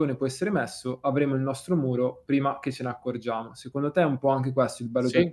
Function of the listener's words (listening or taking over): taking over